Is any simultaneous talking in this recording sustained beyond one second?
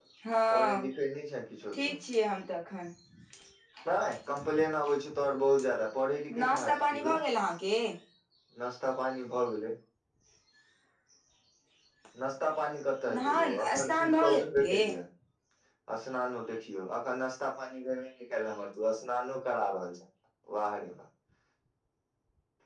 Yes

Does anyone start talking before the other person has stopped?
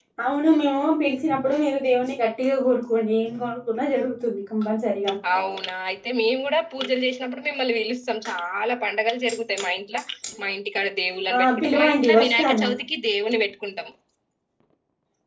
Yes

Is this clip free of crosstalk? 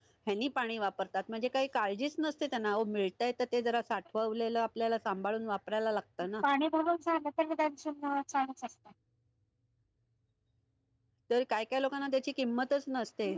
Yes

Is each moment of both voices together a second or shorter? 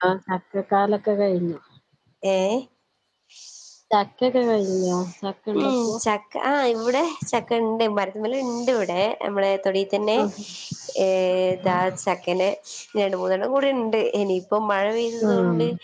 Yes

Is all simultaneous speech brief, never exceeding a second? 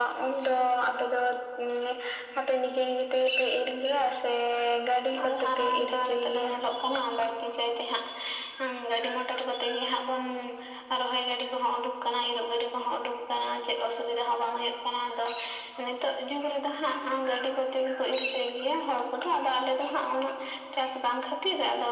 No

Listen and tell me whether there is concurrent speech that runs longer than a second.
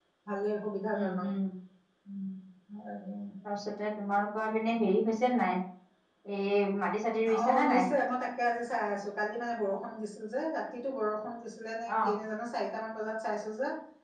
No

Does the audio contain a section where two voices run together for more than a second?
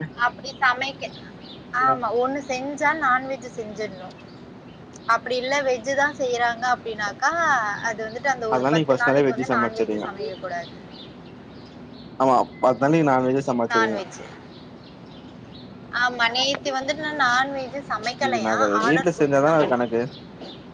Yes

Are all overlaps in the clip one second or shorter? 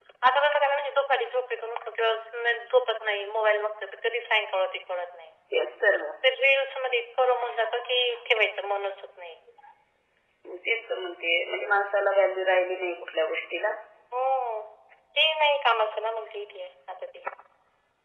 Yes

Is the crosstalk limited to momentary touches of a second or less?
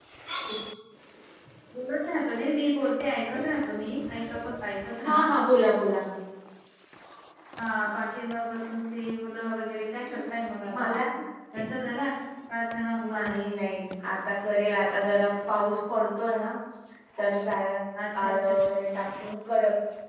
Yes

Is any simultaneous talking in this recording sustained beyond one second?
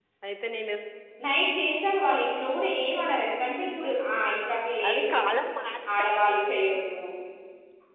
No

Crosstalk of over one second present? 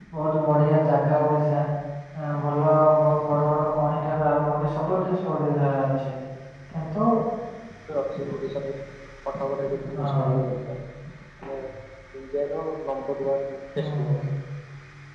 No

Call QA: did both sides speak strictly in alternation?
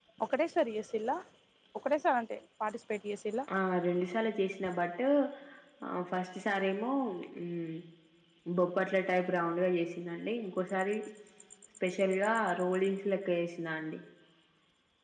Yes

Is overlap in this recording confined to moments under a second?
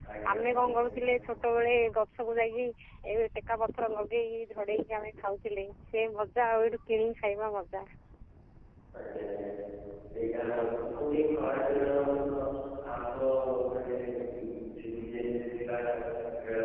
Yes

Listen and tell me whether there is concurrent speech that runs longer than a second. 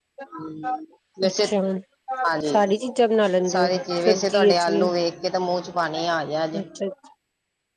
Yes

